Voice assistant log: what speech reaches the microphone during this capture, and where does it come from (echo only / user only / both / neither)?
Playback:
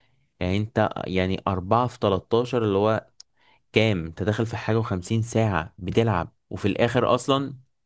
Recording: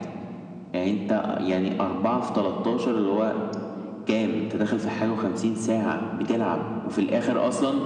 echo only